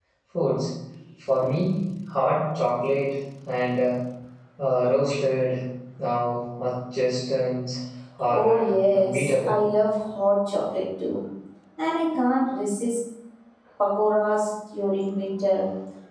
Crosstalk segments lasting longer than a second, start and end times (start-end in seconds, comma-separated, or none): 8.3-9.6